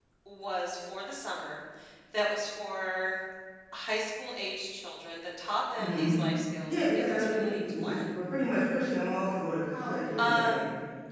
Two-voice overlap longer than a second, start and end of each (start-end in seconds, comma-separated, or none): 6.7-8.0